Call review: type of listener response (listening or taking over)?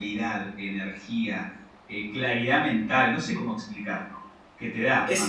listening